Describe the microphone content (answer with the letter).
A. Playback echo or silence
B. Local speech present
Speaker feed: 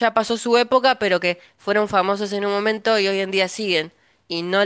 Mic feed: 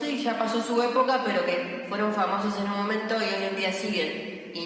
A